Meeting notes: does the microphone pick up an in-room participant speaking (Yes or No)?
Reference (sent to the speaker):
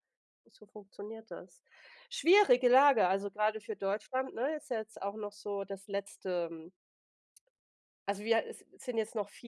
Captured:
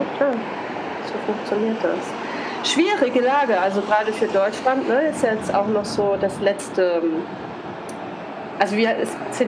No